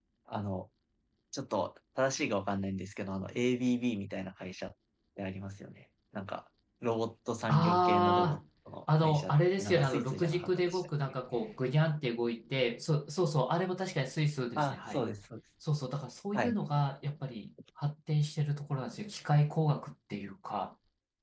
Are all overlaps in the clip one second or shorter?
No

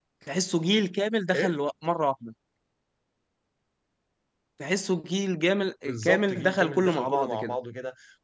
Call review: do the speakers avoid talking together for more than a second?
No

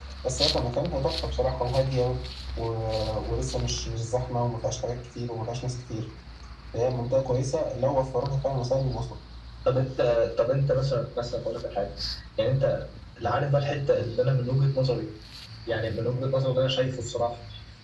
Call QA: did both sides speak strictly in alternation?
Yes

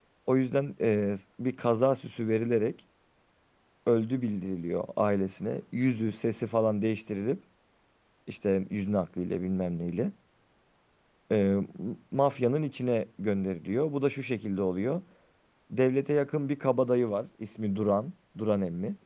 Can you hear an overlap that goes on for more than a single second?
No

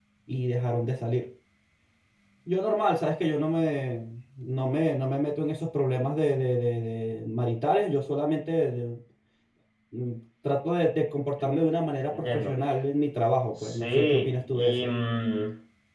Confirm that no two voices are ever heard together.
No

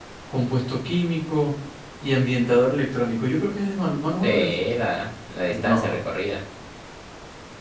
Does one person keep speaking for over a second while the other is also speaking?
No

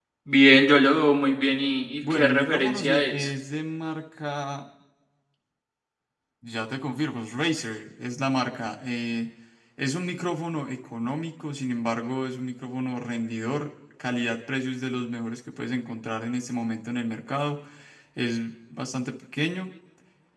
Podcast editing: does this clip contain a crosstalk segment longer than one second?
Yes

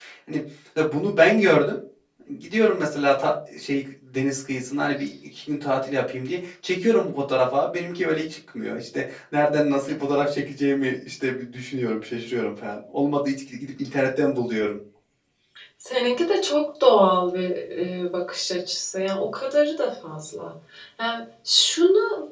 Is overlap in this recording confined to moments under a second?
Yes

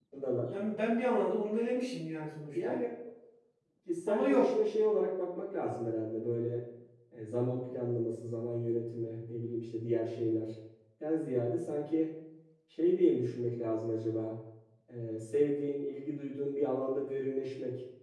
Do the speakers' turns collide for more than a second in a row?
No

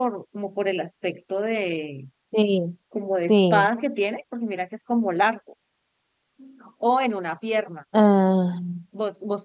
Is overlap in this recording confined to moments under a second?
Yes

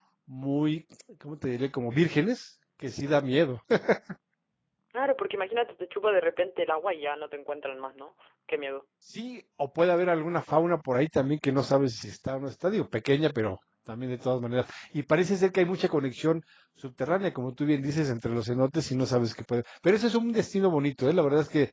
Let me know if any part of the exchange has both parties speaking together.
No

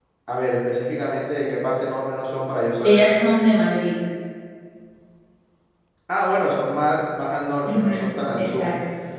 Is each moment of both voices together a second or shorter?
Yes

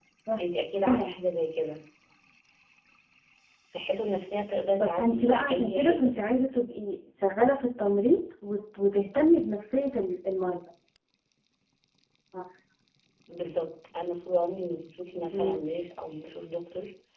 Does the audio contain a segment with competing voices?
Yes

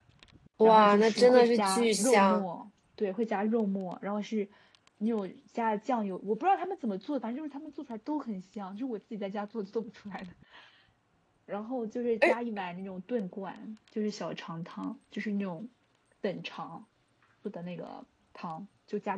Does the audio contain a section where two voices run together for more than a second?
Yes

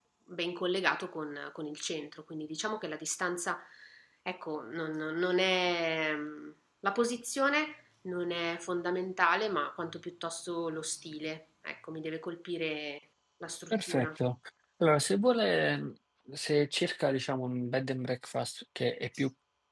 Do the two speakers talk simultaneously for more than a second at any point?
No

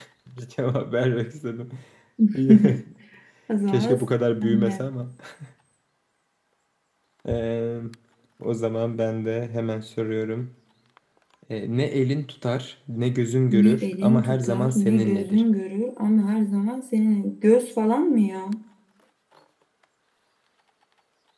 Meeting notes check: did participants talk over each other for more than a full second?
Yes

